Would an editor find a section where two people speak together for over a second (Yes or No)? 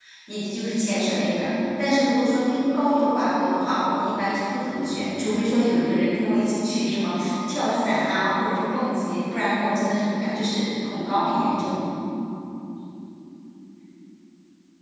No